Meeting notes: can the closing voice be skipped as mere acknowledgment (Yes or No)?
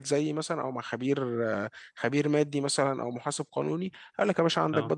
Yes